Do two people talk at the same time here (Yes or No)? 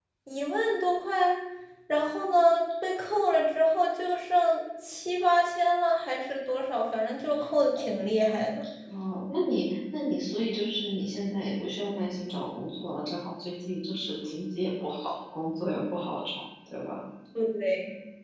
No